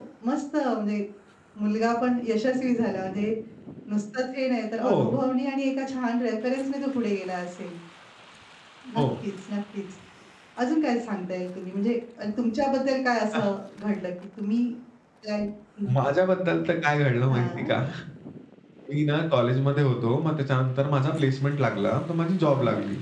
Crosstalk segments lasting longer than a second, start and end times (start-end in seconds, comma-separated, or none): none